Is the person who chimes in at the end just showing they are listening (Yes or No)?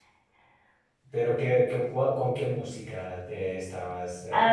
No